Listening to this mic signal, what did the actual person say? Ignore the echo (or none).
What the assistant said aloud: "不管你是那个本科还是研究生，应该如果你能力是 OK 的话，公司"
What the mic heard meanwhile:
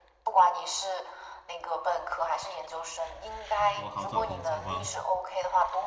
英国好找工作吗？